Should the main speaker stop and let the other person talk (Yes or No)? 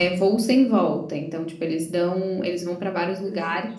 No